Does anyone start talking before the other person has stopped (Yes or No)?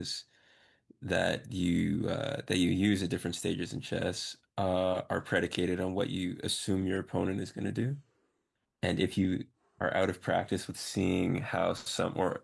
No